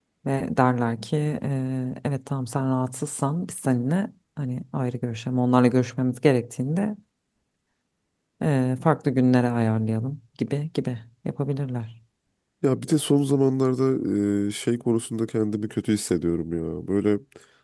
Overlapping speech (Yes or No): No